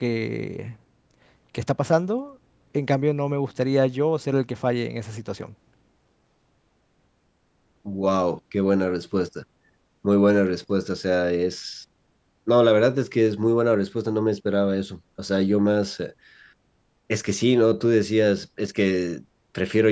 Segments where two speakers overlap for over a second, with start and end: none

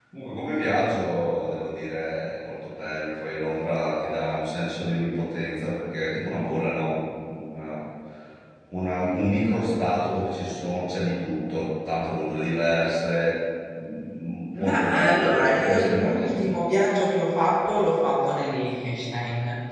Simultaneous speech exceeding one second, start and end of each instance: 14.6-16.5

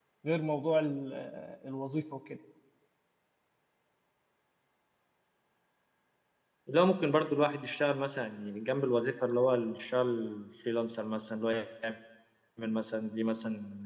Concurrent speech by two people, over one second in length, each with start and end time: none

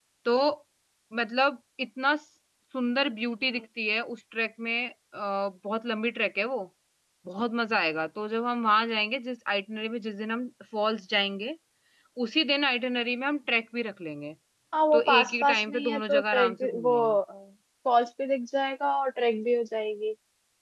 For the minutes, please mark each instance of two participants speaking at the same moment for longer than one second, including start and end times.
14.9-16.9

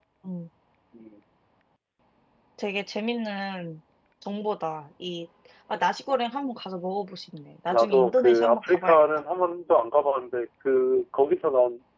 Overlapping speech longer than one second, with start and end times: 7.7-9.0

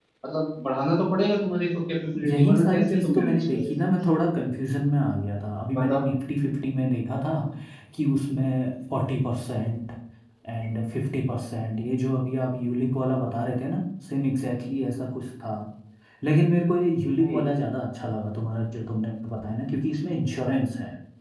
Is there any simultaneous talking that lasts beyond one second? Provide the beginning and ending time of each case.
2.3-3.8

